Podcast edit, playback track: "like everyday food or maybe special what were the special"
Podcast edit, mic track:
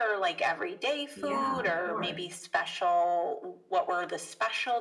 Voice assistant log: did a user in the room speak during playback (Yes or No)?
Yes